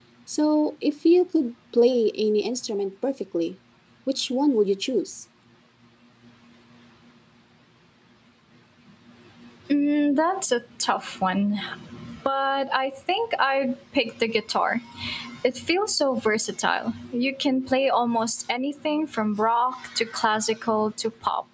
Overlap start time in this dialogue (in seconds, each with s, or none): none